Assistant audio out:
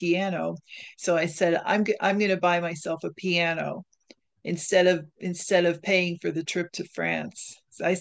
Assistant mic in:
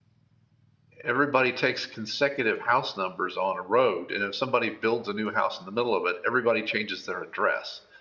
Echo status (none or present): none